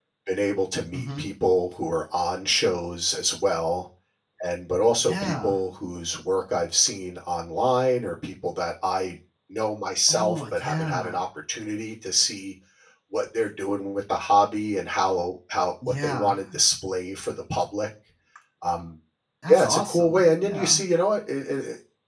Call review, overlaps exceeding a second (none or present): present